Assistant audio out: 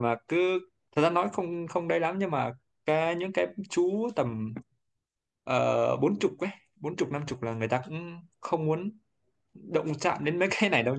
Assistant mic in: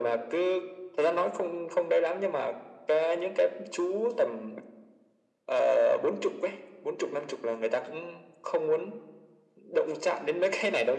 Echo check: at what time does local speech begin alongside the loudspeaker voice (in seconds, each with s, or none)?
none